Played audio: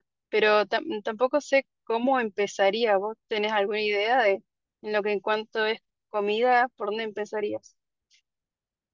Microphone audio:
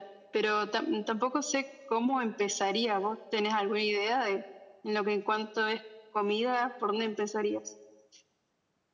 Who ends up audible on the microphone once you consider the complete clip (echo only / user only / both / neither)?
echo only